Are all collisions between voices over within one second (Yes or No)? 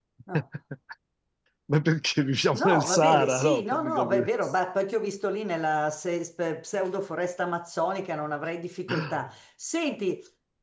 No